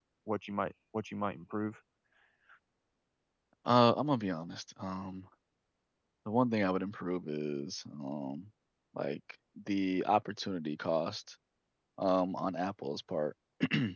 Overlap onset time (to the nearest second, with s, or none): none